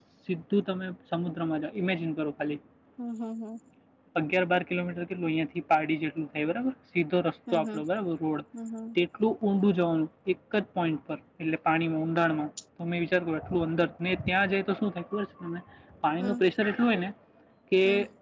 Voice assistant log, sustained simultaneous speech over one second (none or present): none